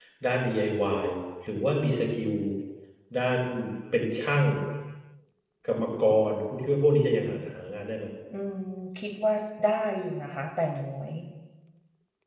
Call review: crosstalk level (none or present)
none